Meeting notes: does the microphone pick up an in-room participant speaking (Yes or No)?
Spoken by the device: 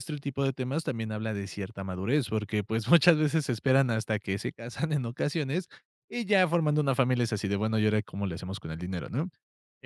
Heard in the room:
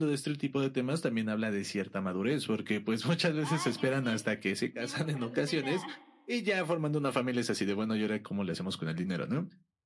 Yes